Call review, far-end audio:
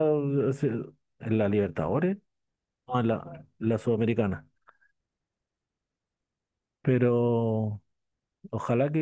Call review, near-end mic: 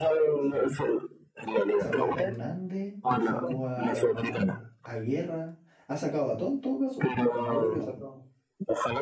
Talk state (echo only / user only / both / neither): both